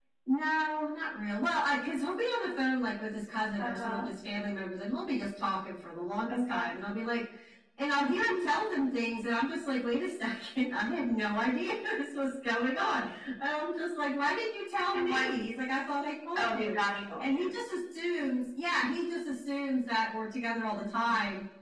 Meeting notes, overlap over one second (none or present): none